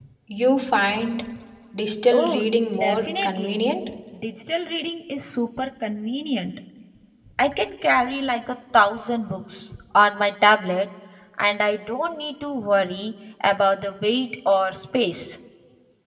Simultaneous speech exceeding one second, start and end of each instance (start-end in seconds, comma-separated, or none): 2.1-3.6